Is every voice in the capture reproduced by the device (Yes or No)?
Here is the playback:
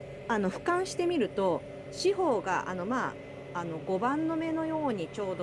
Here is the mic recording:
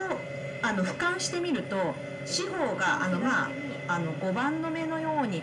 No